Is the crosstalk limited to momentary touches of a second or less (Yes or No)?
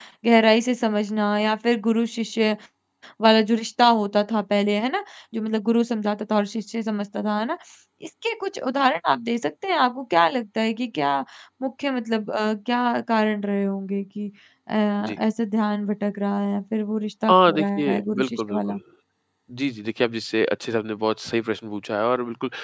No